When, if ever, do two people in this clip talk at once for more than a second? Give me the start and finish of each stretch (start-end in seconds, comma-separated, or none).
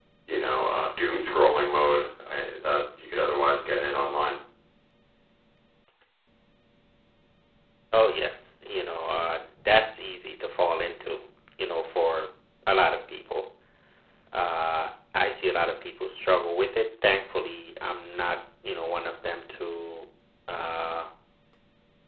none